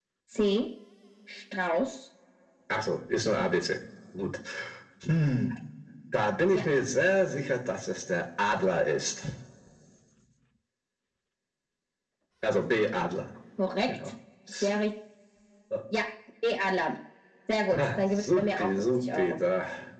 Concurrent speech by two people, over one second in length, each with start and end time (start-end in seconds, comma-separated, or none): 17.7-19.4